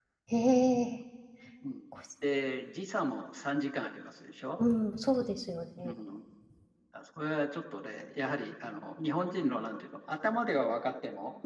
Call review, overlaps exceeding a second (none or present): none